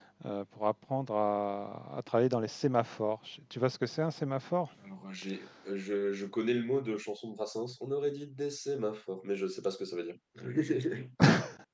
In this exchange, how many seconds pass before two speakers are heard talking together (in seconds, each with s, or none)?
none